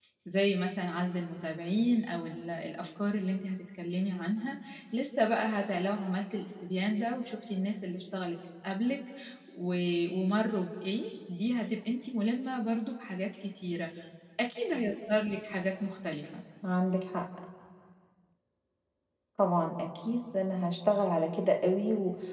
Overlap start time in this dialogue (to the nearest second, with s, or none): none